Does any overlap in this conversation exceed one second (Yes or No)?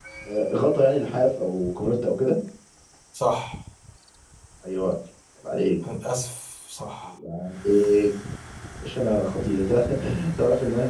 No